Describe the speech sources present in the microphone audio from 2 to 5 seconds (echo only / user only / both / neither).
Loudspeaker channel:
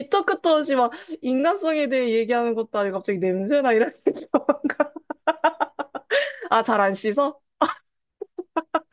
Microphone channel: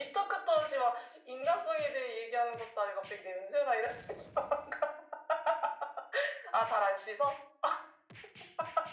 echo only